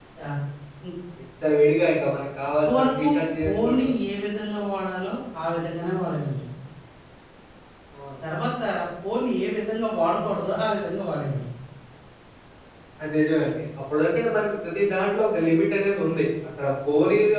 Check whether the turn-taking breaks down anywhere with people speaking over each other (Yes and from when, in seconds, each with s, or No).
Yes, from 2.4 s